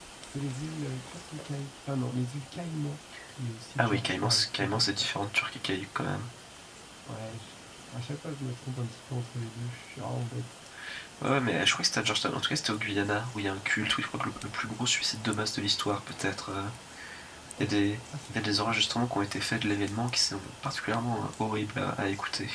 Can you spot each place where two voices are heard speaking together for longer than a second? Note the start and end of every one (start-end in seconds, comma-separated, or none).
3.8-5.1